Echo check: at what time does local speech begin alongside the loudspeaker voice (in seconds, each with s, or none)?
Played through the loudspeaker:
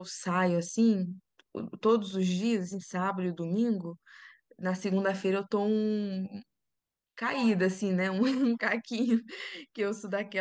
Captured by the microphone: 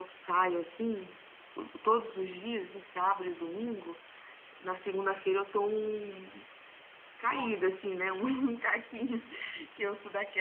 none